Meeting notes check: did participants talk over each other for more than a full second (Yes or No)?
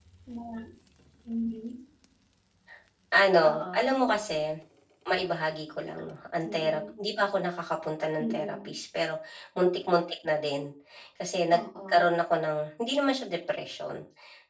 No